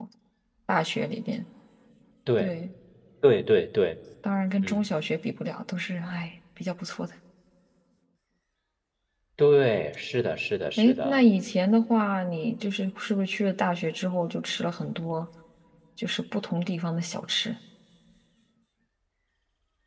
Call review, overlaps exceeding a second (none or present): none